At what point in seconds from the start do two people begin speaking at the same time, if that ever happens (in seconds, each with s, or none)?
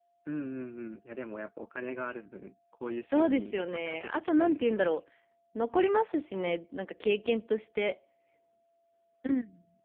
3.1 s